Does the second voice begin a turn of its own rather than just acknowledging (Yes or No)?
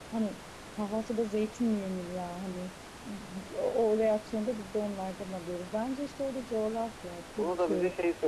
Yes